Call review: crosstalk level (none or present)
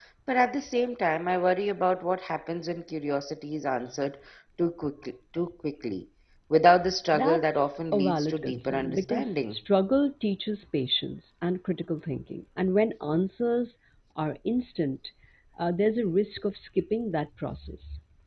present